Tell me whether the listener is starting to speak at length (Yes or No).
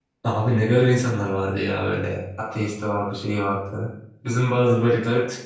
No